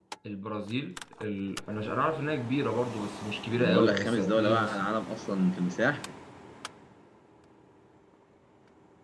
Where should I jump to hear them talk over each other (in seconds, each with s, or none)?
3.6 s